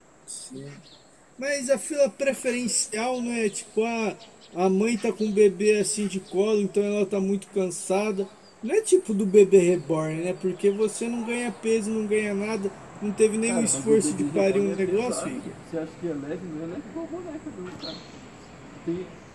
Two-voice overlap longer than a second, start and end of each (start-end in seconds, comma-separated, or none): 13.5-15.5